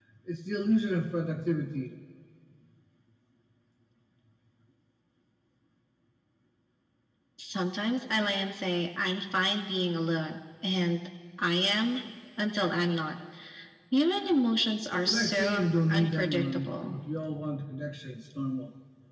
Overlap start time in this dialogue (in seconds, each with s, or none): 15.0 s